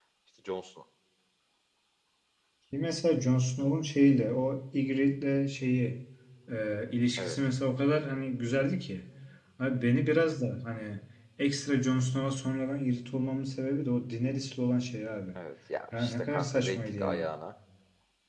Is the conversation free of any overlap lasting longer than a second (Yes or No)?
No